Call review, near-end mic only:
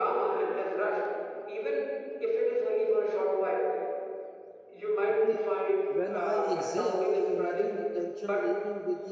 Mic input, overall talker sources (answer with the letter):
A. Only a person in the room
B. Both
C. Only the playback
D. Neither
B